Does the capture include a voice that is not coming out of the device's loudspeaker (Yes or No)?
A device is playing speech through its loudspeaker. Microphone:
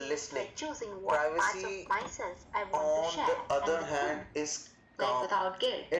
No